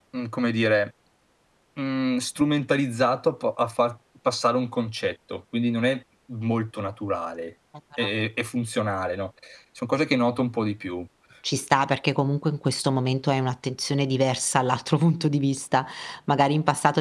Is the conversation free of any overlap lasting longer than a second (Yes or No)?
Yes